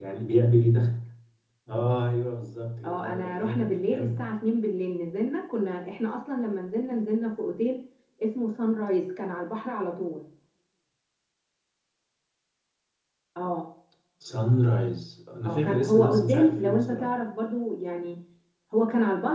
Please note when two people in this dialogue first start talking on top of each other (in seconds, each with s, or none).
2.8 s